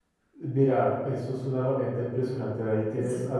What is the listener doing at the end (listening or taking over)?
listening